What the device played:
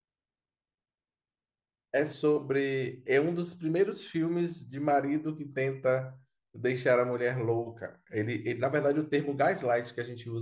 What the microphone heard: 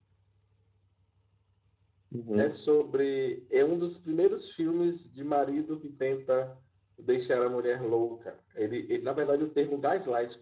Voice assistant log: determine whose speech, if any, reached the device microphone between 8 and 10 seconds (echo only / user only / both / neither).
echo only